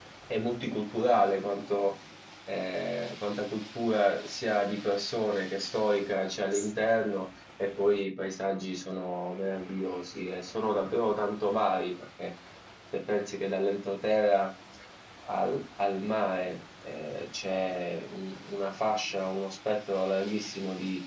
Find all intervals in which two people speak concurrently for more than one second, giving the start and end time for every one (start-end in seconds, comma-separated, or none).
none